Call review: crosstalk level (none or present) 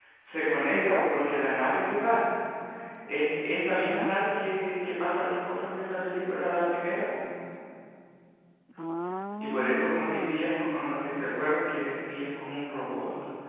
present